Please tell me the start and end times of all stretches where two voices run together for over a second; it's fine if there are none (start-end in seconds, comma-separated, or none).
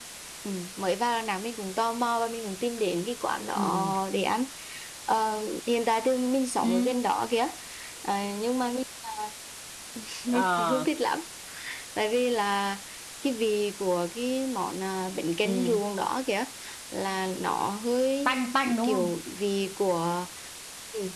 none